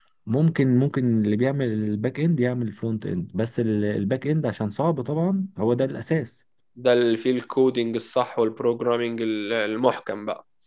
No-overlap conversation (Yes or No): Yes